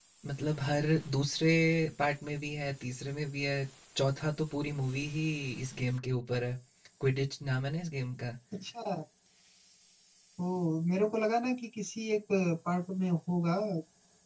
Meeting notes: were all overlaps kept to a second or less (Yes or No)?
Yes